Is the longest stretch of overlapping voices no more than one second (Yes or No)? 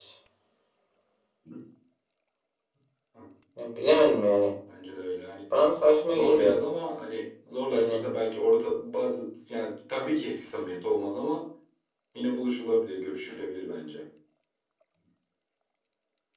Yes